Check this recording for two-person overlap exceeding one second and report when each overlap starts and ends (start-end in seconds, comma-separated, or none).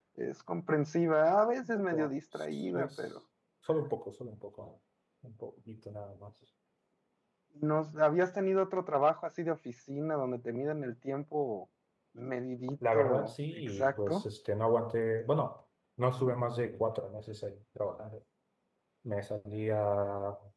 12.9-14.2